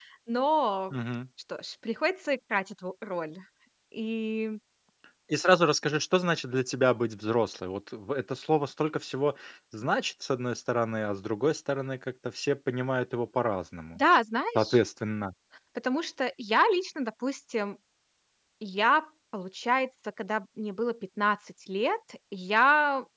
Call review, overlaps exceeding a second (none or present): none